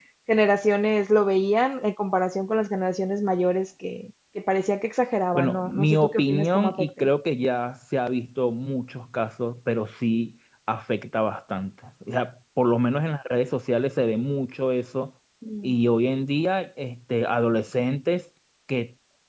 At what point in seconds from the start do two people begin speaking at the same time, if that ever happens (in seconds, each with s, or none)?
5.3 s